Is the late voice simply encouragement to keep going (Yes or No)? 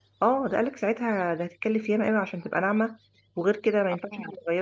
Yes